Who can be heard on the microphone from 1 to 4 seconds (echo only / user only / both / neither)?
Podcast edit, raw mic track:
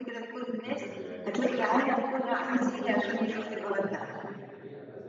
both